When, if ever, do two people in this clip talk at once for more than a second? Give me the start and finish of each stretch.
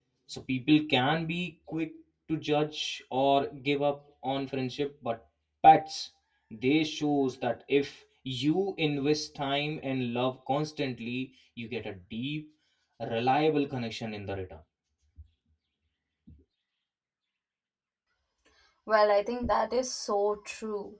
none

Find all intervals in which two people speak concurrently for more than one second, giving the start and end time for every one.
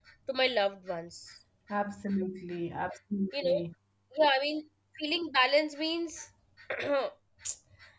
none

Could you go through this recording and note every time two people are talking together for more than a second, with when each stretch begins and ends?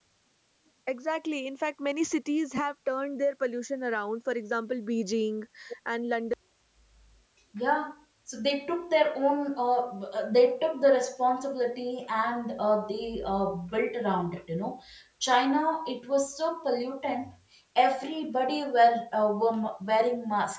none

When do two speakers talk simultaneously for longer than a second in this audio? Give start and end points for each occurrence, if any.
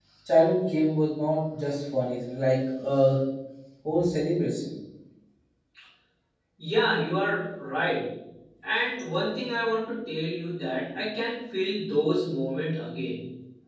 none

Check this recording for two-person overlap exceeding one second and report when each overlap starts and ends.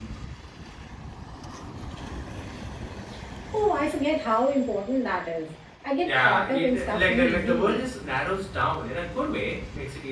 6.0-7.8

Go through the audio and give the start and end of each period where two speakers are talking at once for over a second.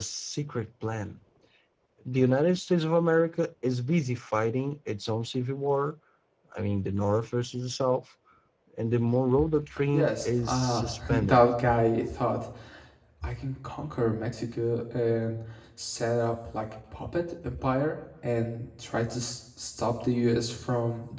9.9-11.4

